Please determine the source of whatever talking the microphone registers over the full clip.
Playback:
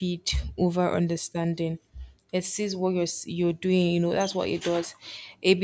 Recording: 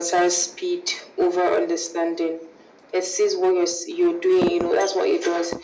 echo only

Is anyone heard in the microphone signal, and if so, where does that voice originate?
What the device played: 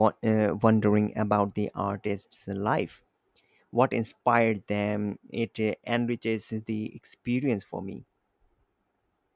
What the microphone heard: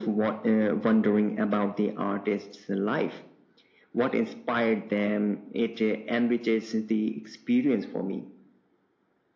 echo only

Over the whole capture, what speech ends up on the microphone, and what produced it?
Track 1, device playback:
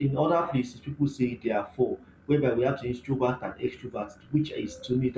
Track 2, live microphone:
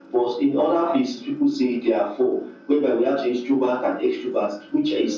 echo only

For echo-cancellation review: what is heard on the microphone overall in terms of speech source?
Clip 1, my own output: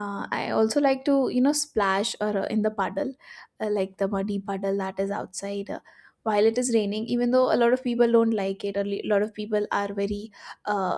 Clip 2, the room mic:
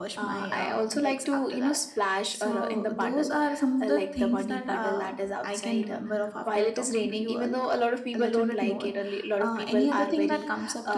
both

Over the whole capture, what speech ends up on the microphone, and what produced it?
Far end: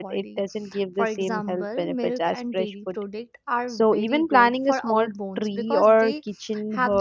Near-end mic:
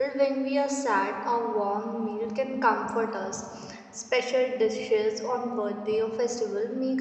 user only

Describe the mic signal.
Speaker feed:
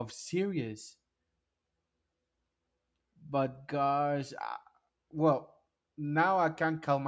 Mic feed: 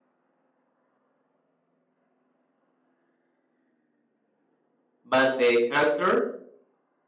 user only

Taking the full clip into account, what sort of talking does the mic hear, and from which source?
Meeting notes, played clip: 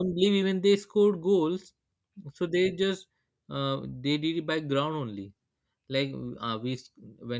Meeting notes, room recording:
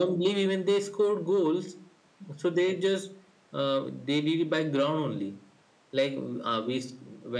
echo only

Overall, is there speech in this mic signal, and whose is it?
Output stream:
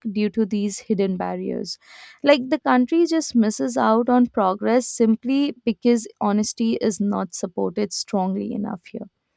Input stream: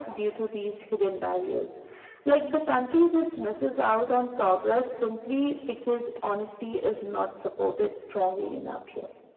echo only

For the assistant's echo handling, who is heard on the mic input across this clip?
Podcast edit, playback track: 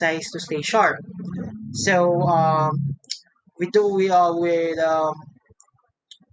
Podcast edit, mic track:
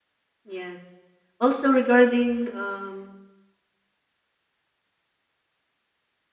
user only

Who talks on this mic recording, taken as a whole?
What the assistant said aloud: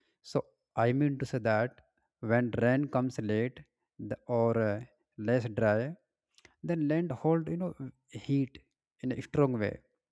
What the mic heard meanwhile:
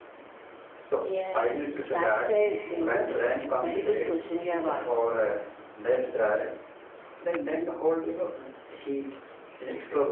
both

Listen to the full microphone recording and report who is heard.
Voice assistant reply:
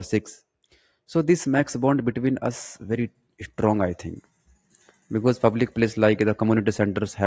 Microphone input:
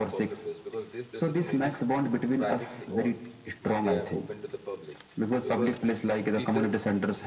both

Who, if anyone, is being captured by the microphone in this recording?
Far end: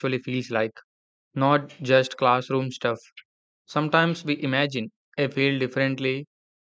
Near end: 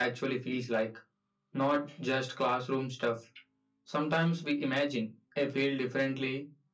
echo only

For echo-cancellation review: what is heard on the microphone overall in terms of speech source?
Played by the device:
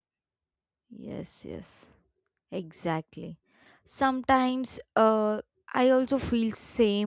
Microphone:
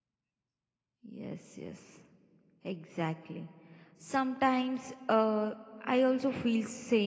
echo only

